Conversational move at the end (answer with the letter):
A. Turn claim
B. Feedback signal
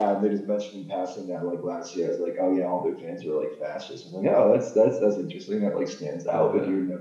B